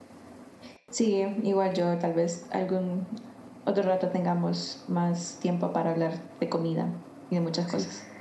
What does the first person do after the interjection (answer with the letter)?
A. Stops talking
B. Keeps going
A